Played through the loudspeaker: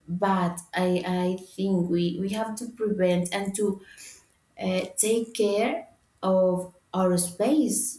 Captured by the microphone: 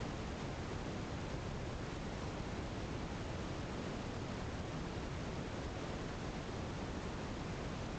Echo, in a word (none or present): none